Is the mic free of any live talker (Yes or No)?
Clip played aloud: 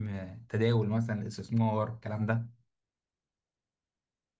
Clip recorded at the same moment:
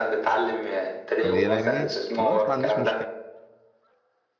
No